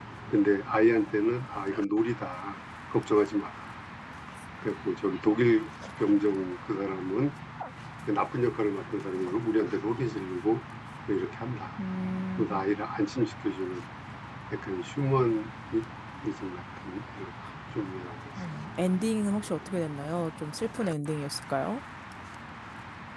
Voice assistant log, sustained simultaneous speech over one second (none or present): none